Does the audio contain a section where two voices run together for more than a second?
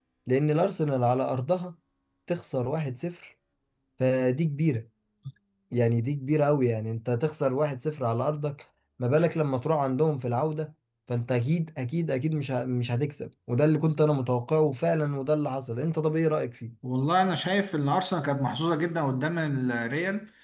No

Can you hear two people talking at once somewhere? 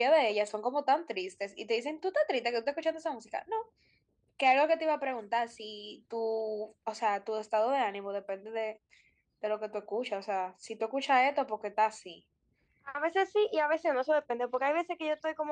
No

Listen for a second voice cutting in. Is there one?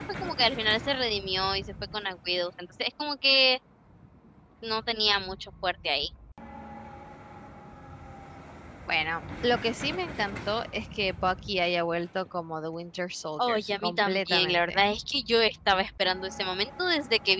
Yes, from 13.4 s

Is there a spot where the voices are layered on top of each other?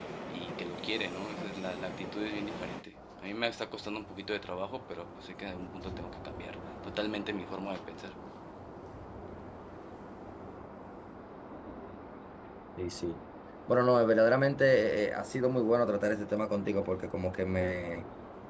No

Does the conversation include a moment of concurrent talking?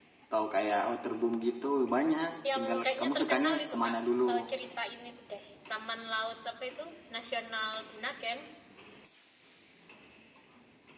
Yes, from 2.4 s

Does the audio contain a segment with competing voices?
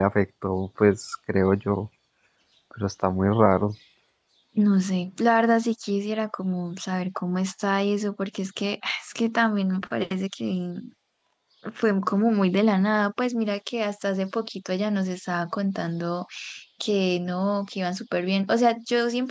No

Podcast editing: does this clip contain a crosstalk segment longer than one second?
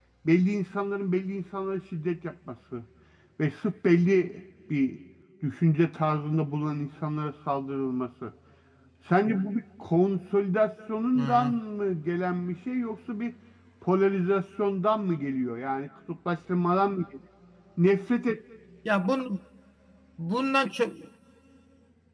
No

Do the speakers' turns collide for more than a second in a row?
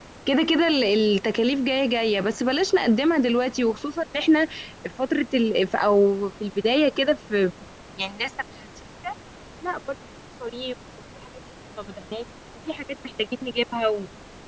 No

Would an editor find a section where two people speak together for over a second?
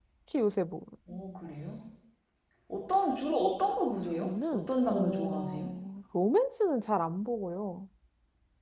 Yes, from 4.2 s

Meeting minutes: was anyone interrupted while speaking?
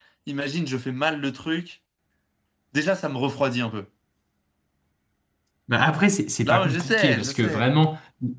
Yes, from 6.4 s

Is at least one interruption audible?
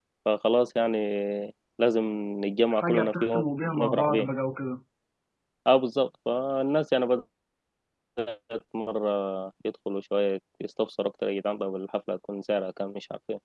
Yes, from 2.7 s

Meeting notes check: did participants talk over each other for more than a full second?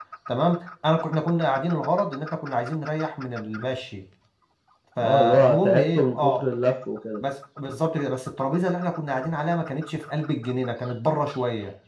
Yes, from 5.0 s

